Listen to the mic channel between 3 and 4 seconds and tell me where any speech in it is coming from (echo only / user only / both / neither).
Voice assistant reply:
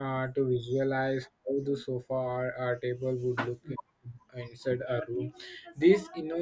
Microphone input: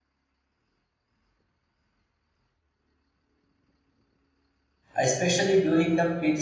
neither